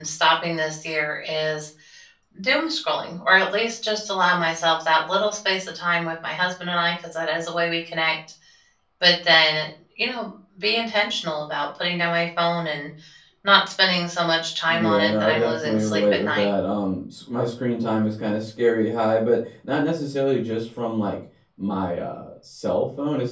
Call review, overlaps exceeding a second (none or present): present